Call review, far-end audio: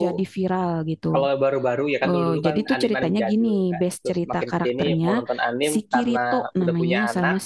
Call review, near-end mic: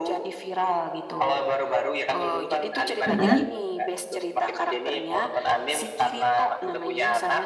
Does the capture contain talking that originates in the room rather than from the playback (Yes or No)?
Yes